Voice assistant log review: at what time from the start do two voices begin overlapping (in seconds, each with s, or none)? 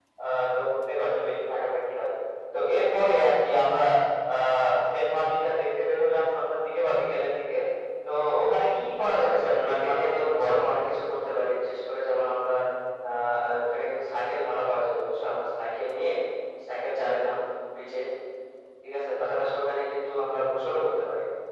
9.2 s